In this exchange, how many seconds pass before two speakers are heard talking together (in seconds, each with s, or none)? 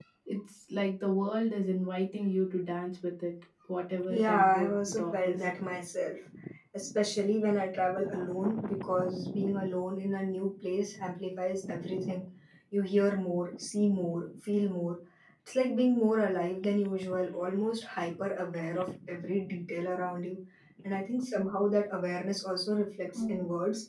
4.1 s